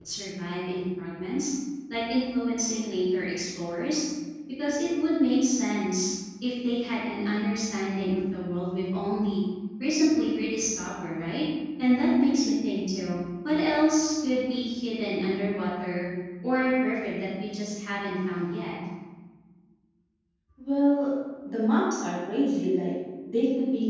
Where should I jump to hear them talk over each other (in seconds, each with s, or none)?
none